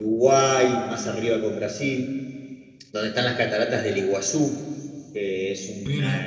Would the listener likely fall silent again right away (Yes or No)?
Yes